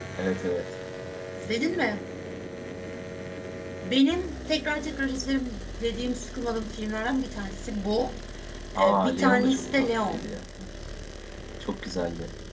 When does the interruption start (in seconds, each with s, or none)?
8.8 s